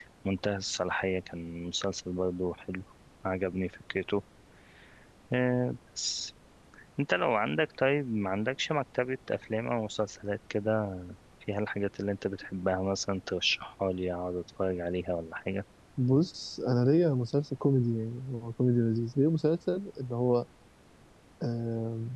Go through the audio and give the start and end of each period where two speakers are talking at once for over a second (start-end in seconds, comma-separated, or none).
none